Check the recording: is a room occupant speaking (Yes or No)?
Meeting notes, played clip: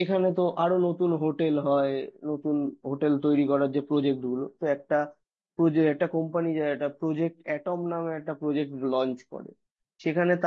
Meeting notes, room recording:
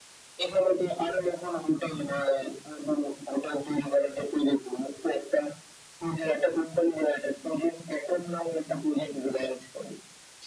No